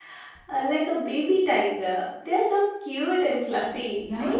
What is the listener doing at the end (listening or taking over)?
taking over